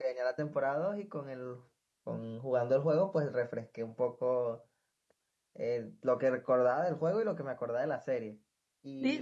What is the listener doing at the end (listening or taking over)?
taking over